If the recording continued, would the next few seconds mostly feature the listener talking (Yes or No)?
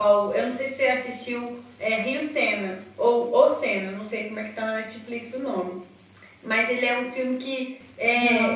No